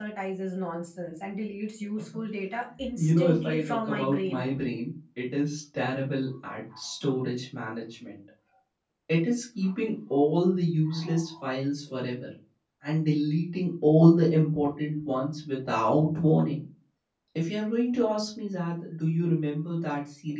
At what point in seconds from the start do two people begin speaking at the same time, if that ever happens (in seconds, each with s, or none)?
3.0 s